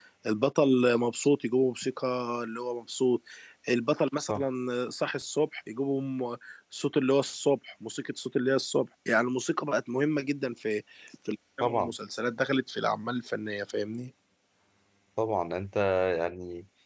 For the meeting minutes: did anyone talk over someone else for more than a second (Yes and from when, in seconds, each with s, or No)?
No